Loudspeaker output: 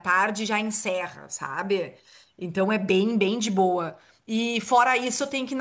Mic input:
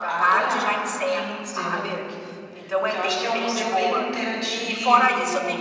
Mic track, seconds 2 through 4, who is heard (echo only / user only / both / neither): both